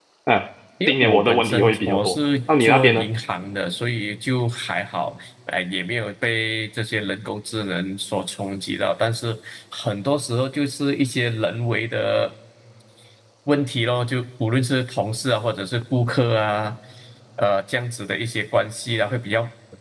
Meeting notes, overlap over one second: present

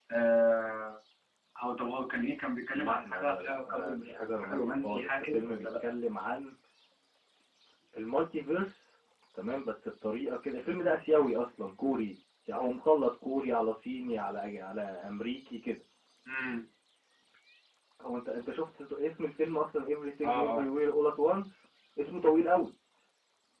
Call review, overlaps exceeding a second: present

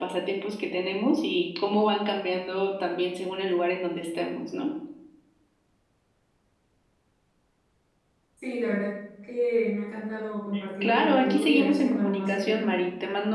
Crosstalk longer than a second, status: present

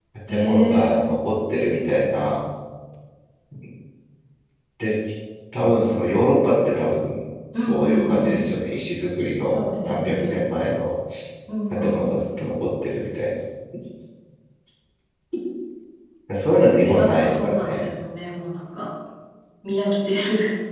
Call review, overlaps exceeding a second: present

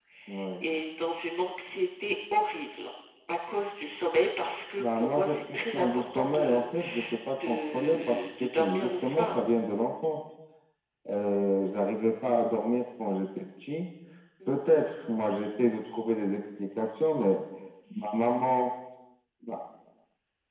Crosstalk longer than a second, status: present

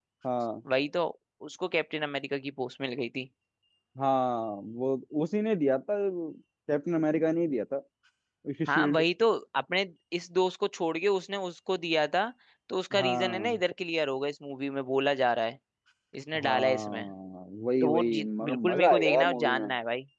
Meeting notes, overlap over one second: present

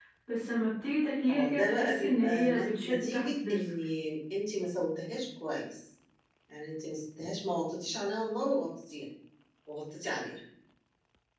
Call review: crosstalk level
present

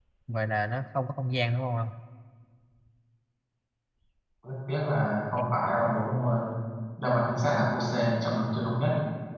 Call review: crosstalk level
none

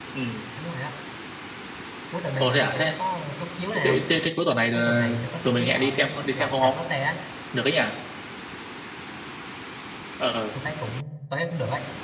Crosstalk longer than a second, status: present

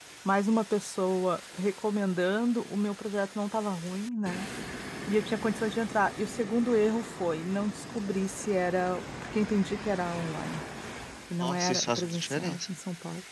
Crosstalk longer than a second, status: present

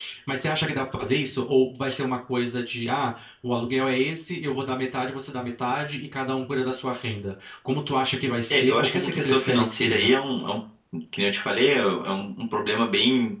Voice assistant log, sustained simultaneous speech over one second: present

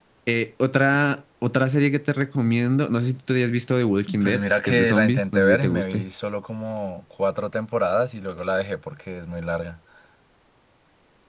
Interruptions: present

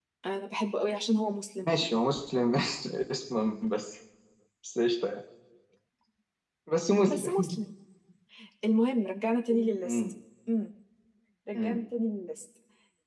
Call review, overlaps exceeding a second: none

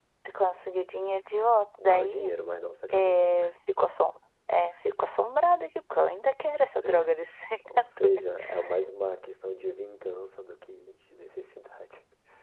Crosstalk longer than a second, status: none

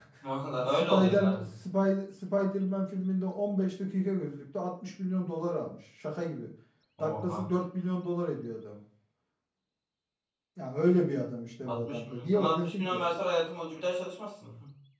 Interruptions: present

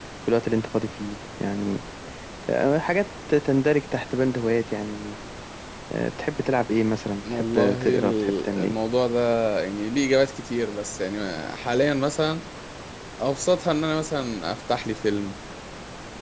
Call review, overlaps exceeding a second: present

